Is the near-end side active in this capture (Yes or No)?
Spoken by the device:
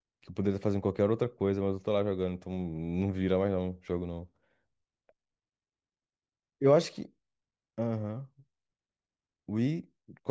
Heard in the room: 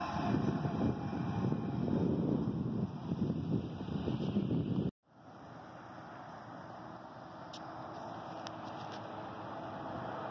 No